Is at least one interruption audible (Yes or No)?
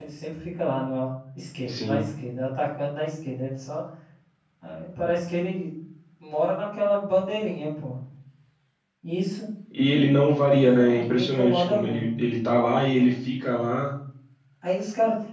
Yes